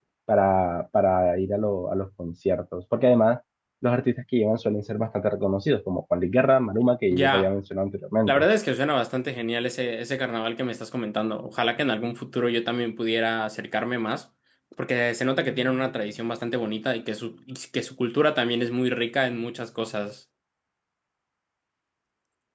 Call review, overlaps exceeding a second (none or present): none